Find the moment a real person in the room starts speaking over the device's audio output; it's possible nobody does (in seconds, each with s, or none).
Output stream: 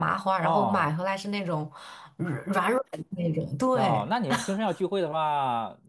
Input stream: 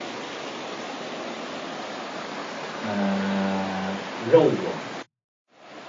2.7 s